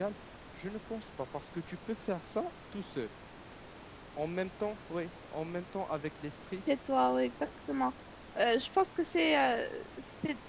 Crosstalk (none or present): none